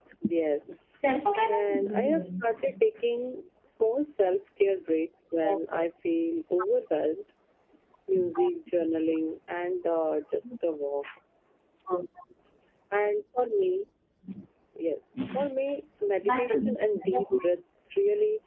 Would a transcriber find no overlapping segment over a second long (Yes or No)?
No